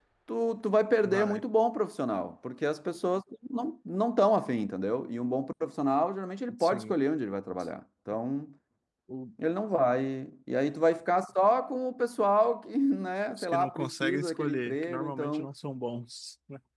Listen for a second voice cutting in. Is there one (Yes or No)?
Yes